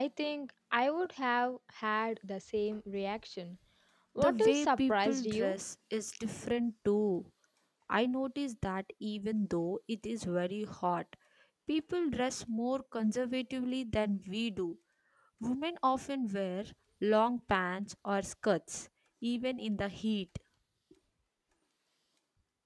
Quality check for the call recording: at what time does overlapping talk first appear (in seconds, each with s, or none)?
4.2 s